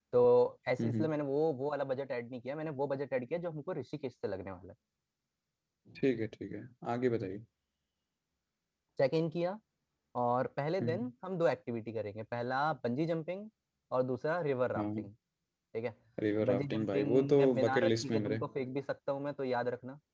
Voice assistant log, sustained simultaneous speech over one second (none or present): present